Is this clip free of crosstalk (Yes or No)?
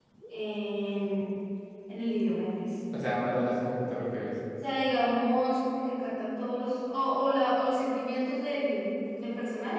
Yes